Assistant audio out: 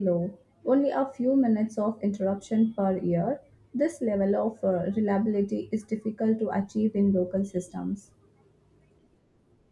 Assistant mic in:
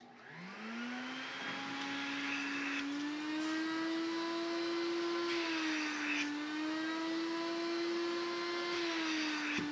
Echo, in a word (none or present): none